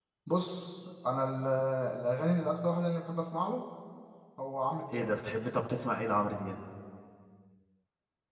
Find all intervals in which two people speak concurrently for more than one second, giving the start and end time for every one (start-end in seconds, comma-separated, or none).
none